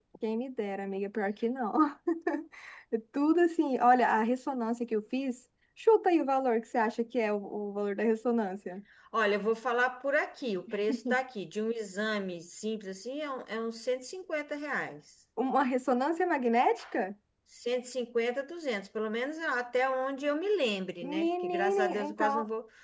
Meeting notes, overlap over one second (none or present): present